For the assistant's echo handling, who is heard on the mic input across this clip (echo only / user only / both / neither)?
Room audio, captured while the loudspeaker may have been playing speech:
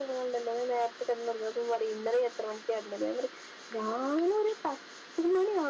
echo only